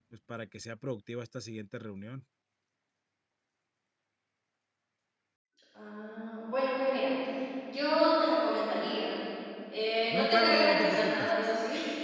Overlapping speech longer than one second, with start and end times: 10.1-11.3

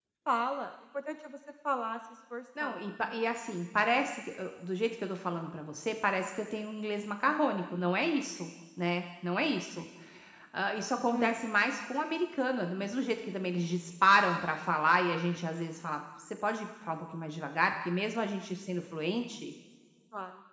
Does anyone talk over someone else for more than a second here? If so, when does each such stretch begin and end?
none

